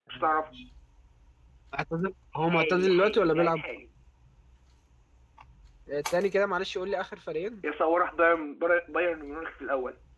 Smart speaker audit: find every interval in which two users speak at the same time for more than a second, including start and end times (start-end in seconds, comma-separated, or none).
2.4-3.6